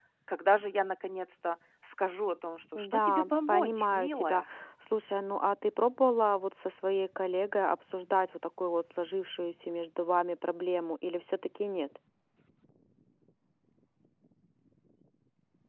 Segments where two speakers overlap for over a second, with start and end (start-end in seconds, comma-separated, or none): 2.8-4.4